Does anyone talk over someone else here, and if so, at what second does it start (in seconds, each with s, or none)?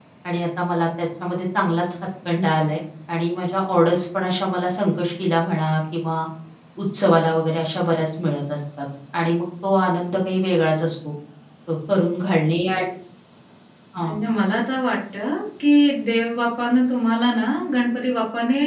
none